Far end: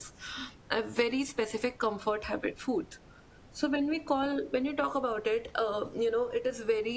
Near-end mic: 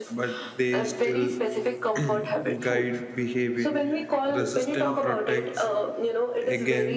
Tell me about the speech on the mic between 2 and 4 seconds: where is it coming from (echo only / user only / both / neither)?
both